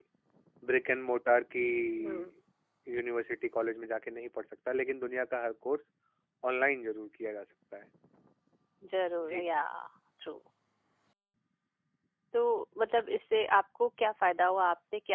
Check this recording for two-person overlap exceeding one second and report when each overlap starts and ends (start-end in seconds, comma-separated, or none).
none